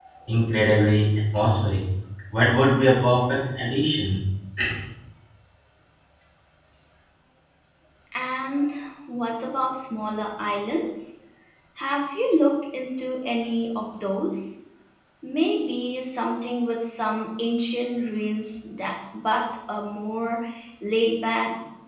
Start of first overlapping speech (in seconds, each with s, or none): none